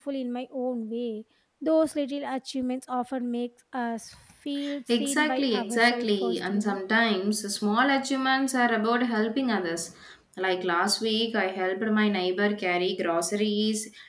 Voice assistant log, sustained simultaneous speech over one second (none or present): present